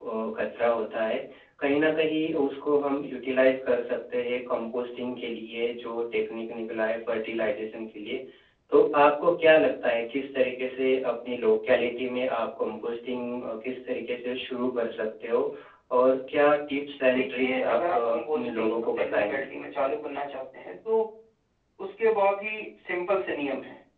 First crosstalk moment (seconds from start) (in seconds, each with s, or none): 17.1 s